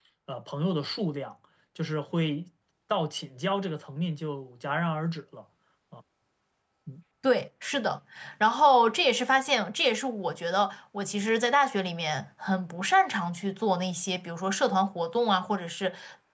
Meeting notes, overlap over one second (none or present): none